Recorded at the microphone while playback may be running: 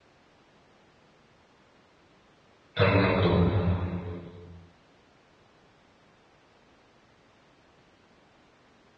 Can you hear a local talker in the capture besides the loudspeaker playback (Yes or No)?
Yes